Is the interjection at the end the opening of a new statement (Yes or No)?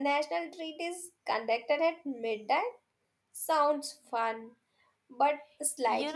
Yes